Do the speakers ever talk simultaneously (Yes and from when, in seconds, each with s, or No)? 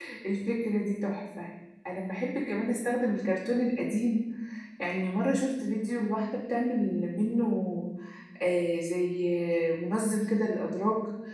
No